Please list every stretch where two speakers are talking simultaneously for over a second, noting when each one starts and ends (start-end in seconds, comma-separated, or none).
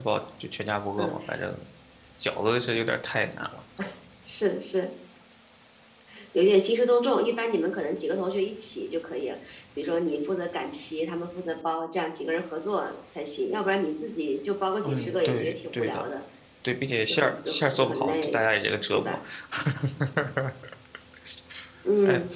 14.8-16.1, 17.1-18.4